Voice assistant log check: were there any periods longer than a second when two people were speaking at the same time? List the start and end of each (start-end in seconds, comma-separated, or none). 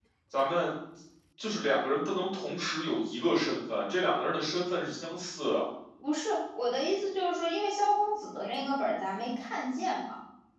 none